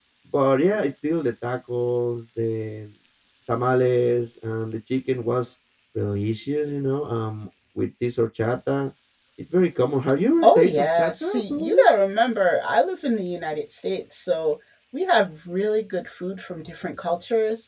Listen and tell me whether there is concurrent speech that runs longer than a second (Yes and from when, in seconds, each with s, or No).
Yes, from 10.4 s